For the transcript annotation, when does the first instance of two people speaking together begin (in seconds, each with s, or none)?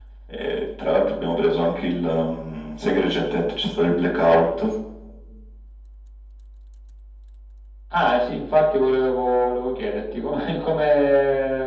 none